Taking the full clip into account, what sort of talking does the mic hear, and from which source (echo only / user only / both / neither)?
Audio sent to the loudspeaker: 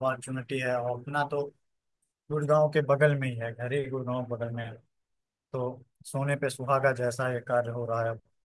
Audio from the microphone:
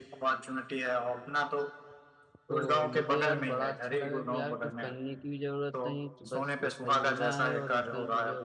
both